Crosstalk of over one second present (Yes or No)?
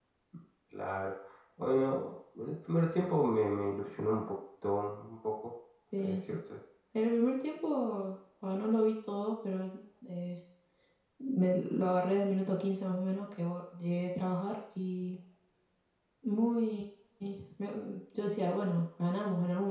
No